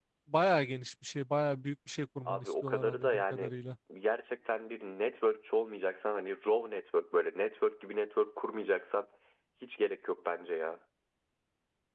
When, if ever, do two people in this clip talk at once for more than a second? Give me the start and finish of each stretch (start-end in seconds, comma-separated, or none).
2.3-3.5